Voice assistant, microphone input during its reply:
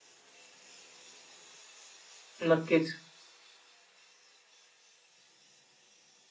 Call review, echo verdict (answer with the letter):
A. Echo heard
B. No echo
B